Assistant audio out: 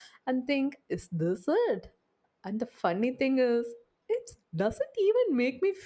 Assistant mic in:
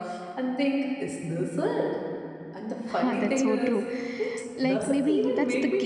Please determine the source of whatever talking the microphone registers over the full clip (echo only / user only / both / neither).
both